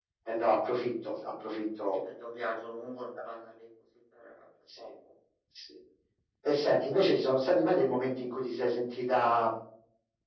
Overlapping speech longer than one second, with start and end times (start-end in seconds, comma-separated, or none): none